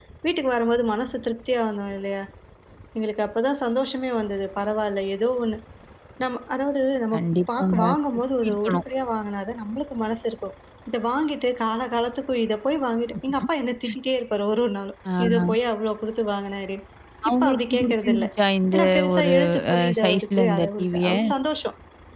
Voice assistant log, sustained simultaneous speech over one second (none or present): present